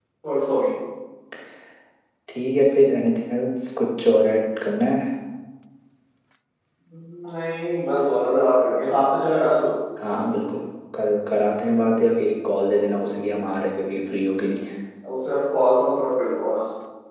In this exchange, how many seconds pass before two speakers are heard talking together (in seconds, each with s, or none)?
none